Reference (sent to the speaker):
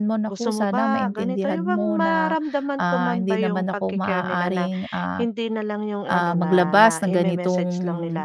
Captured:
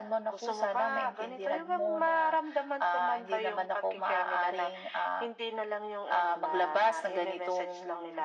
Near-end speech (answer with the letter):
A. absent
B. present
A